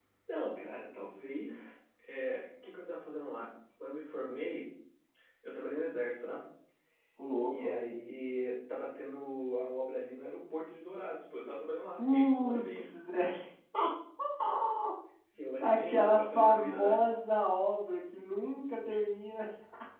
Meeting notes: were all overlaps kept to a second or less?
No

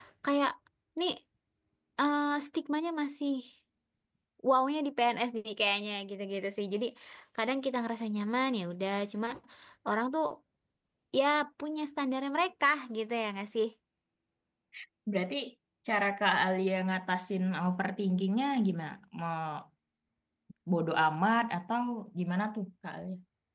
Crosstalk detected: No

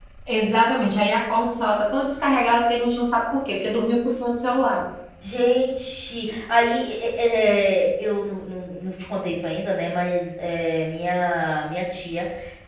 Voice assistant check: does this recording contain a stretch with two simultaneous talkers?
No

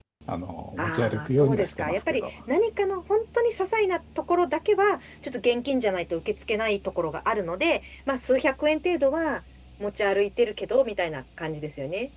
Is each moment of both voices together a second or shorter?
No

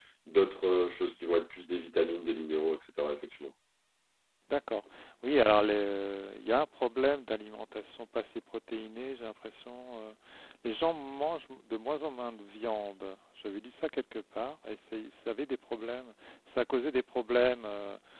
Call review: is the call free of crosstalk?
Yes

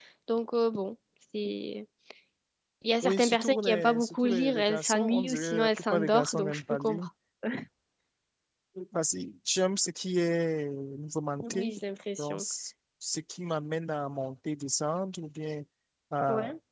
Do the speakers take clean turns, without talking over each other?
No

